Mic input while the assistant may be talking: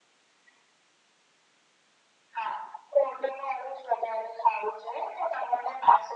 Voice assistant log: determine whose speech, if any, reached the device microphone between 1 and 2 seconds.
neither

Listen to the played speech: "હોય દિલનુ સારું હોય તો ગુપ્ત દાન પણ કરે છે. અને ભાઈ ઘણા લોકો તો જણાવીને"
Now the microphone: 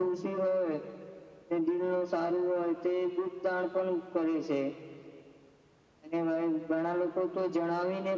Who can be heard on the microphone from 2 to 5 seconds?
echo only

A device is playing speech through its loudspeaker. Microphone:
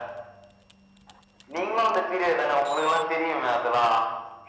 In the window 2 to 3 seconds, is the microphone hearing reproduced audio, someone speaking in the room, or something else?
echo only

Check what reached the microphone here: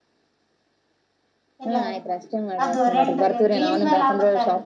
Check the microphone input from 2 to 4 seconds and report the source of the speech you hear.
both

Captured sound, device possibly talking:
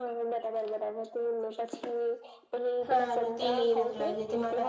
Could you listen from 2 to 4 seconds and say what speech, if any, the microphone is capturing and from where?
both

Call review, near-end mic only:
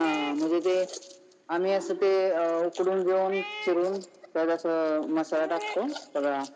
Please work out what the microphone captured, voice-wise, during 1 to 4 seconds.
echo only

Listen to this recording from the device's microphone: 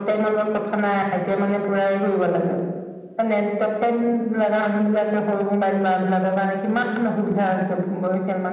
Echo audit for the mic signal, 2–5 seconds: echo only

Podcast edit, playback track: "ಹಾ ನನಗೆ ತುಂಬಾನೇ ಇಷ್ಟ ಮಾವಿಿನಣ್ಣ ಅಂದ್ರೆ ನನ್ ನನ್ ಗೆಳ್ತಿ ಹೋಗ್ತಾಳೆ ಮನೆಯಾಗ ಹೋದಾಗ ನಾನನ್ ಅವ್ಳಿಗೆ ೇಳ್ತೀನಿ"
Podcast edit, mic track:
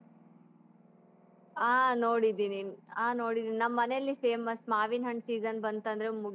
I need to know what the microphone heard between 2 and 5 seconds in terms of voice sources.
user only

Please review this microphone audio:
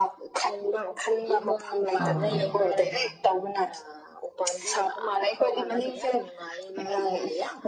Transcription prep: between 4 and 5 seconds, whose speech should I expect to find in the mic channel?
echo only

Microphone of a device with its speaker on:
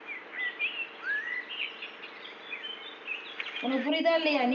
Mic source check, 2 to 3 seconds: neither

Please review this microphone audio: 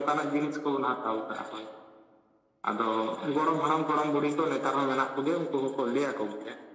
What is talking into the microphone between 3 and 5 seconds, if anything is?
echo only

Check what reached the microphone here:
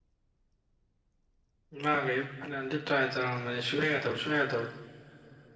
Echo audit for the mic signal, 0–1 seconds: neither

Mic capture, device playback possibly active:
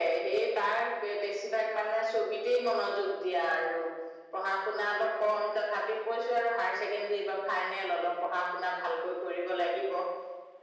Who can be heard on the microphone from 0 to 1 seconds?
echo only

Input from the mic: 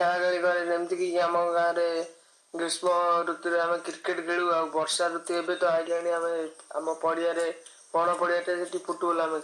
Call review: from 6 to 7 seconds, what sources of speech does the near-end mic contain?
echo only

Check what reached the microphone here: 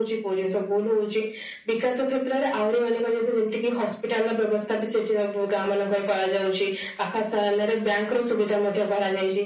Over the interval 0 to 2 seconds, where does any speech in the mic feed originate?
echo only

